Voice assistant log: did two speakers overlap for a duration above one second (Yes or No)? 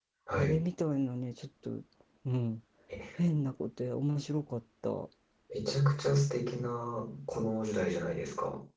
No